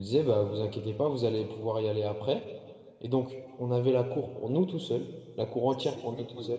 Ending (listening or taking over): listening